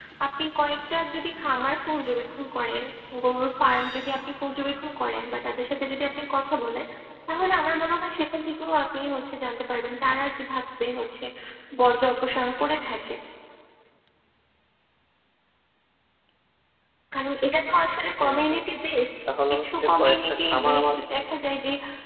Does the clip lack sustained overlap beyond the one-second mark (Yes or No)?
No